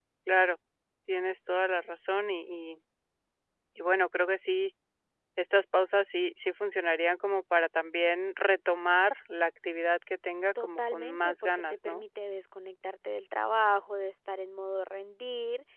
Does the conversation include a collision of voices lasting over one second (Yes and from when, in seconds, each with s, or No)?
Yes, from 10.6 s